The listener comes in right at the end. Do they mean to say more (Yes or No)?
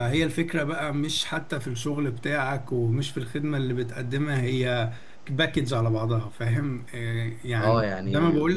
Yes